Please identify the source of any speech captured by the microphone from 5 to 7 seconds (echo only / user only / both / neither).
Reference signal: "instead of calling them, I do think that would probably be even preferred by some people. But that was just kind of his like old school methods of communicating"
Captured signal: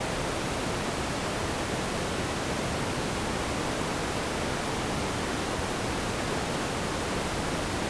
neither